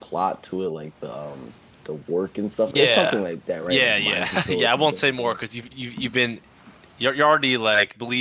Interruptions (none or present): present